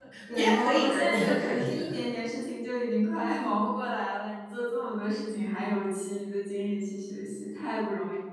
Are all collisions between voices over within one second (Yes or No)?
No